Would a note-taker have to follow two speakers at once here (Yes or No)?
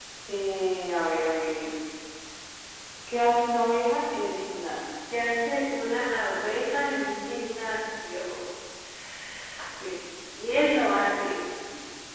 No